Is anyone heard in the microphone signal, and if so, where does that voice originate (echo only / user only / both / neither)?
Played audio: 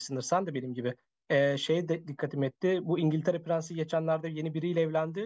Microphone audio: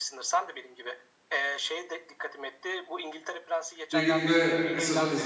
both